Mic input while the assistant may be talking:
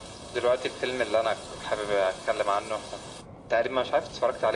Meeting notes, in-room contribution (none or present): none